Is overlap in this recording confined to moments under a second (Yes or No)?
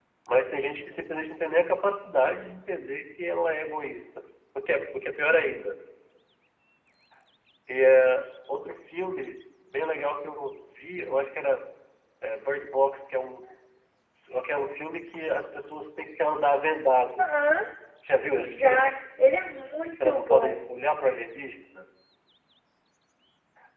Yes